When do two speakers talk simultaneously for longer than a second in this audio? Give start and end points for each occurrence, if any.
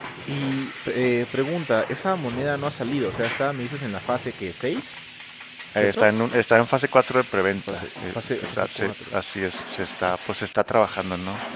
7.7-8.9

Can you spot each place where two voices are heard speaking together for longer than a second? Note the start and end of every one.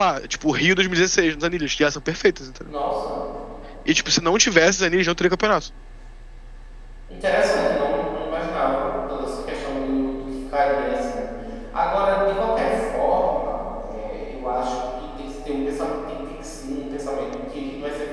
none

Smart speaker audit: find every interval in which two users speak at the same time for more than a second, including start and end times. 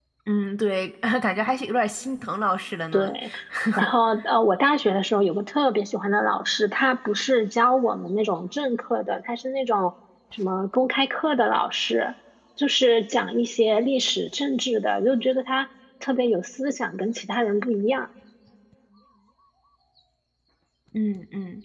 none

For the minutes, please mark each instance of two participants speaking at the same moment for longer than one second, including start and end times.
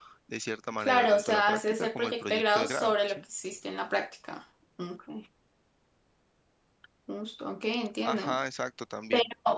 0.8-3.2

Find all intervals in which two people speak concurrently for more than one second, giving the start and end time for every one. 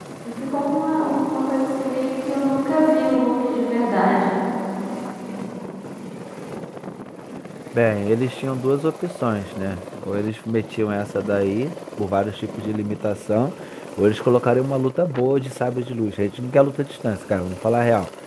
none

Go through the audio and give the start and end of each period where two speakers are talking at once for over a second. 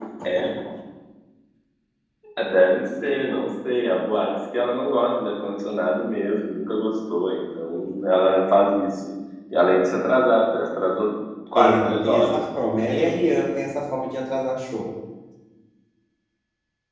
11.6-13.4

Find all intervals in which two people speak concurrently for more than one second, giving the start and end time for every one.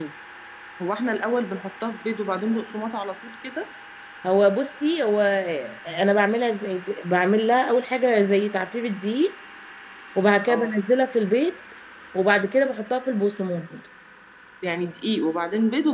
none

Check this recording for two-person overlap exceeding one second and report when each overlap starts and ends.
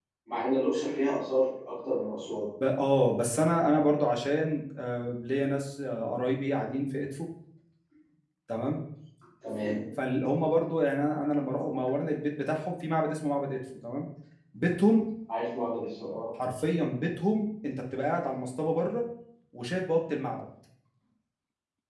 none

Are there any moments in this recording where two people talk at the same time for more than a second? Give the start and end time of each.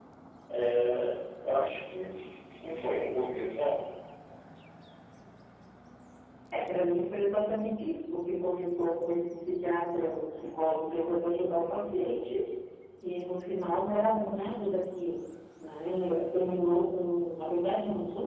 none

